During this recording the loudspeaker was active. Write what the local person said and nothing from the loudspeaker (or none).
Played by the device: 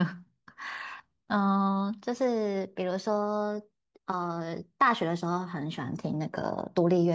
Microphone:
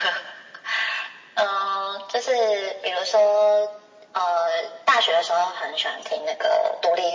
none